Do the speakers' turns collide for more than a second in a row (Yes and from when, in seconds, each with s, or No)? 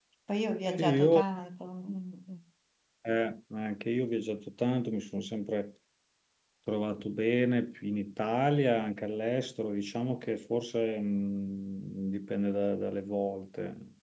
No